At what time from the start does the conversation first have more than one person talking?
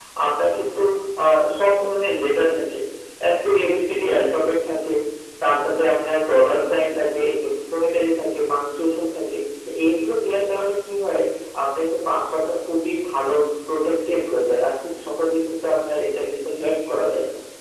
none

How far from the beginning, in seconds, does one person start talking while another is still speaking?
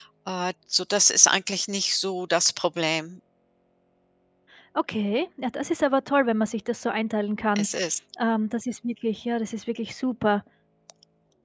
none

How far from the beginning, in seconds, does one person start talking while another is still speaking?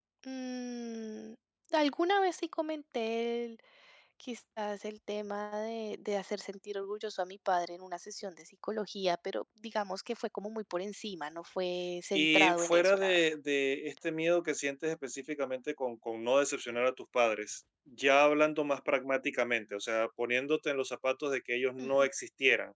12.1 s

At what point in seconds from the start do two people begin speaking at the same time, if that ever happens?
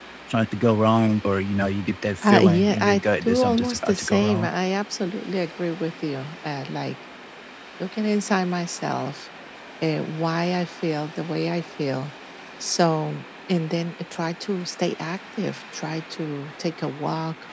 2.2 s

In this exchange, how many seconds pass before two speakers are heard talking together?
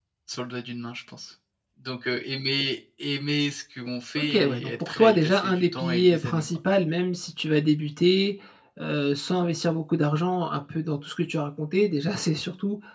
4.2 s

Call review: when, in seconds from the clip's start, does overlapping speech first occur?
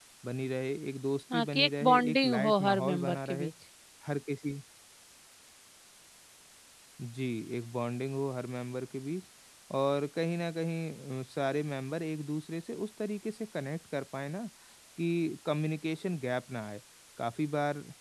1.3 s

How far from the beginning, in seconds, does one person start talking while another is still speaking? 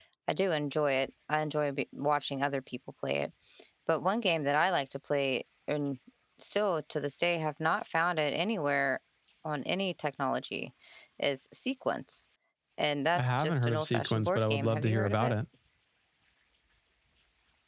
13.2 s

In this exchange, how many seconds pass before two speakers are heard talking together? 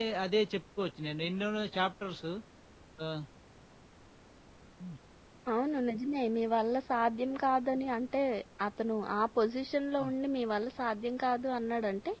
none

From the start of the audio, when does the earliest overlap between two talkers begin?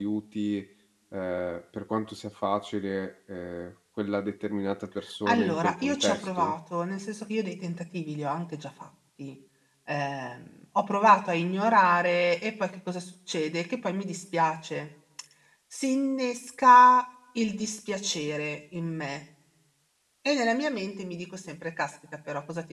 5.3 s

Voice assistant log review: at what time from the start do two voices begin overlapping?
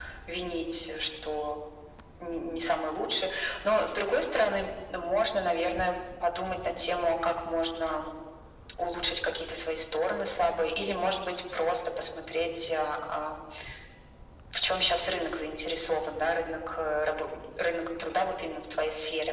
none

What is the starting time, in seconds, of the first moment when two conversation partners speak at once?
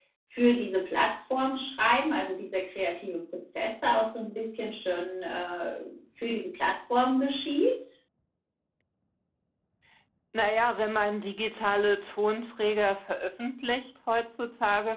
none

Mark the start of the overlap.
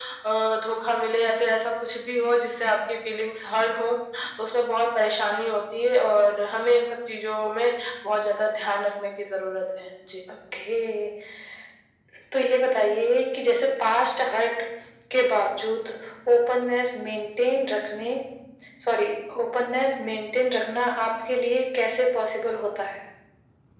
none

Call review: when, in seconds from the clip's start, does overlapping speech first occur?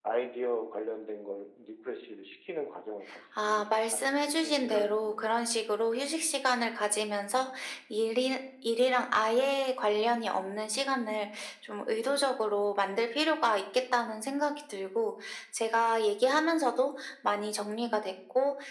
3.4 s

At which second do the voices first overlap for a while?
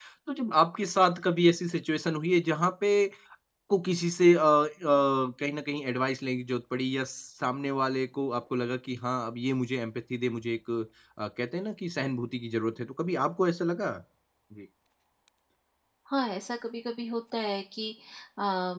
none

